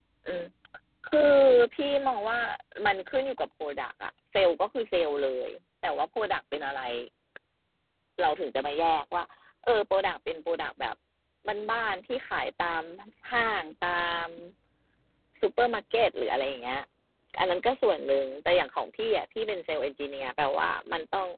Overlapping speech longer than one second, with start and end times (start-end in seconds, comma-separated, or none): none